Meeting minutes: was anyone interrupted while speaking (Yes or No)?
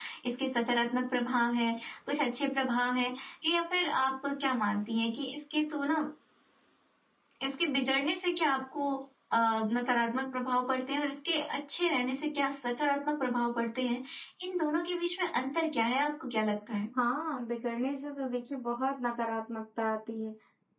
No